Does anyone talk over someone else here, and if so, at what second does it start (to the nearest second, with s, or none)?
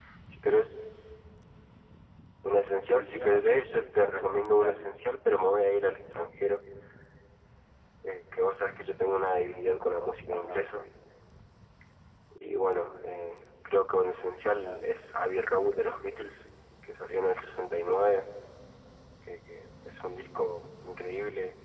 3 s